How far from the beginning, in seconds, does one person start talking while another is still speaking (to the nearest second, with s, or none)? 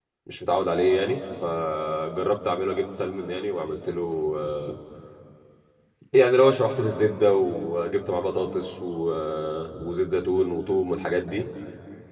none